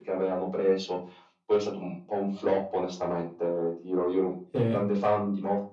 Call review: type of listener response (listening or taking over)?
listening